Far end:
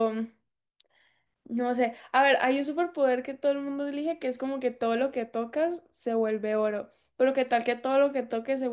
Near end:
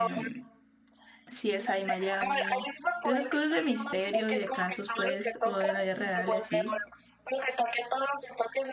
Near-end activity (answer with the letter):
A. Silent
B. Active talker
B